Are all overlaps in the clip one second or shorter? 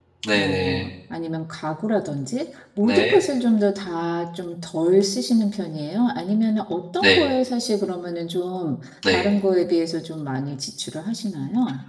Yes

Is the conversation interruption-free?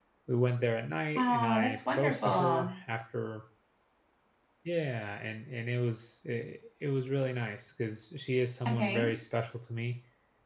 No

